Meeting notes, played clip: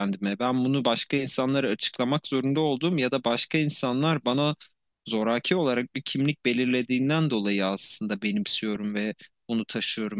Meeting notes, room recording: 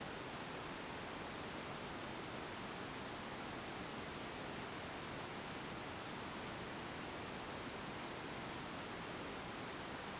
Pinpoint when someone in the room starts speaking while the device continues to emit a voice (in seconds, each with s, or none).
none